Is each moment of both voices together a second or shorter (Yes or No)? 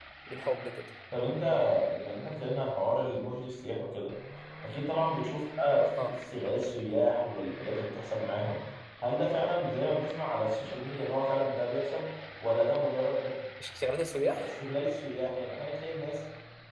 Yes